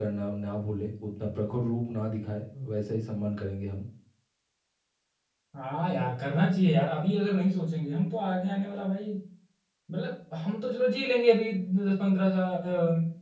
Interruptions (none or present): none